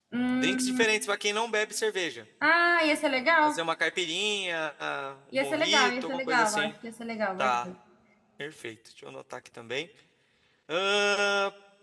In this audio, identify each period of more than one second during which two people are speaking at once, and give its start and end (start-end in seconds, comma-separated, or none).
5.4-6.7